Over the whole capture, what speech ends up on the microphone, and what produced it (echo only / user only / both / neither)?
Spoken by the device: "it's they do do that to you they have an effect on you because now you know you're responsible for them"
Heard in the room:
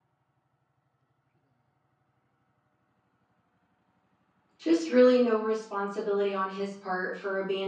user only